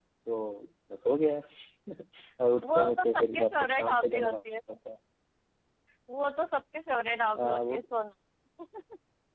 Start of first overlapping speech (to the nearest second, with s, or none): 3 s